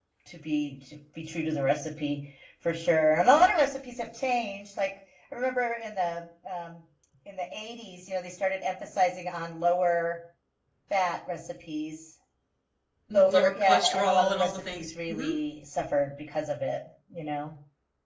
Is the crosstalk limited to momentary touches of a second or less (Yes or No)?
No